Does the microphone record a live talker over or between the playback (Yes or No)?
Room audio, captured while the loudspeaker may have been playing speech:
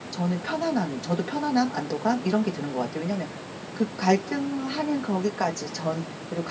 Yes